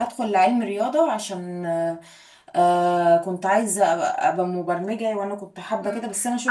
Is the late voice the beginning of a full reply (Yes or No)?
Yes